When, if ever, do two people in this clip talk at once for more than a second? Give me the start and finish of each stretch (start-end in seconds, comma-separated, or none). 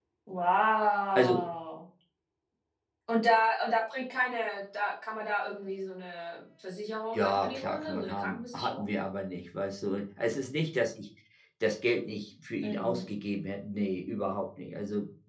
7.1-8.9